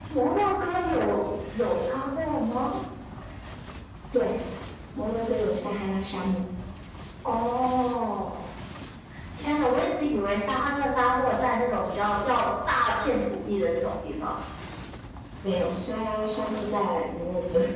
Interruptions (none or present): none